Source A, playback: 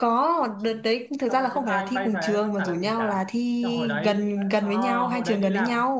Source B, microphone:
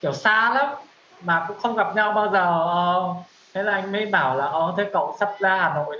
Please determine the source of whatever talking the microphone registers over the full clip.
user only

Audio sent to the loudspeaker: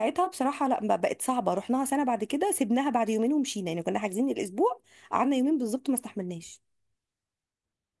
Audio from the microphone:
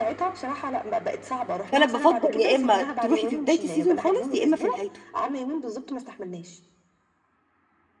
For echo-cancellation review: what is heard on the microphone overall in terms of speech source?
both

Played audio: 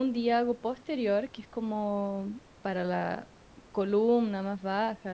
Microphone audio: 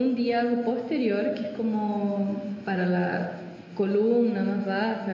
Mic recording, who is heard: echo only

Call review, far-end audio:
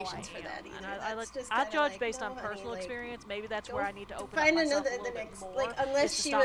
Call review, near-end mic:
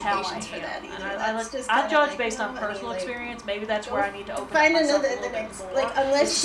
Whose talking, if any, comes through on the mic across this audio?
echo only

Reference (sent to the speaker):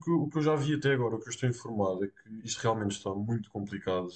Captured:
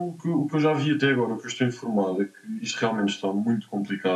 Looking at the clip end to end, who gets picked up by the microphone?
echo only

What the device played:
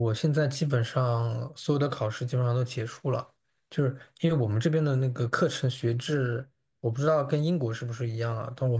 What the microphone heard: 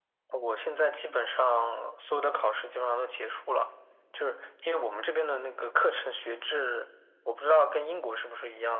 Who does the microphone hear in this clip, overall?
echo only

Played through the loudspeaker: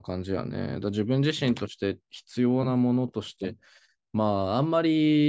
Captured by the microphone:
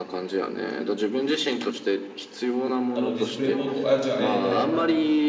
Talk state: both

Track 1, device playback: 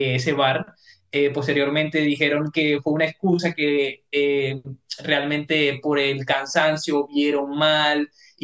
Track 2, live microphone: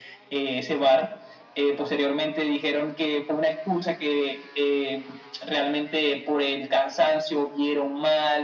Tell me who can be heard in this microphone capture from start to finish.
echo only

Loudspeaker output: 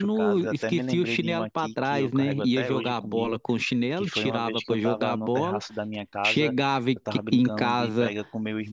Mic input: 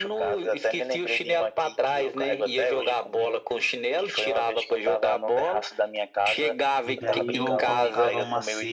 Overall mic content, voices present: both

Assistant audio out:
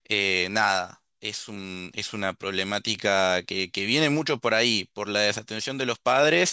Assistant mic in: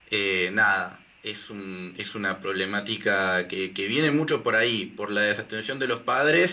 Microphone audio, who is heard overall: echo only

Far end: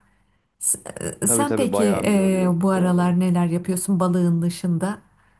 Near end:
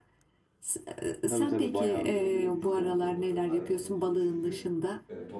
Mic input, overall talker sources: both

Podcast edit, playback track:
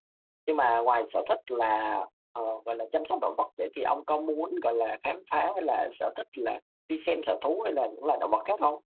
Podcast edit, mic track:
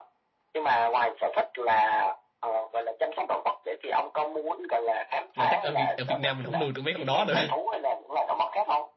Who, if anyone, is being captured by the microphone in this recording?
both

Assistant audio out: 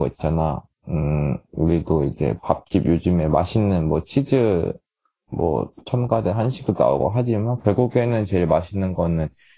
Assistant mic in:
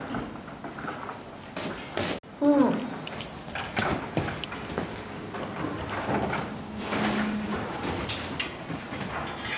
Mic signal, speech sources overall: user only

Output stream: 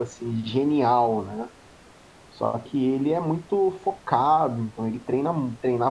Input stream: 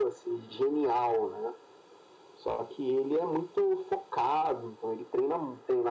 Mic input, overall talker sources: echo only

